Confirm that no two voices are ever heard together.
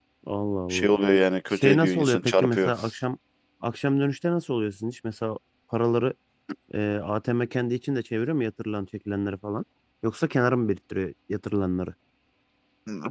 No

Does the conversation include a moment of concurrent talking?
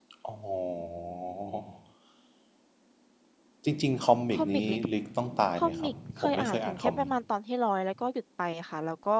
Yes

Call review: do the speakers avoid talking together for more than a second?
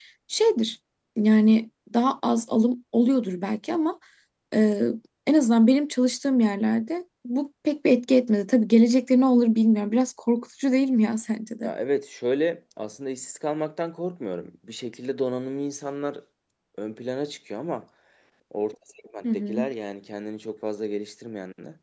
Yes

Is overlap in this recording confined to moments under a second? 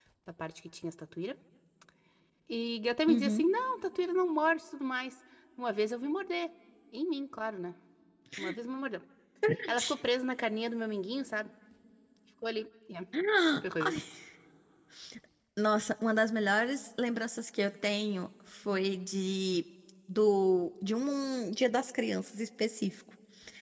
Yes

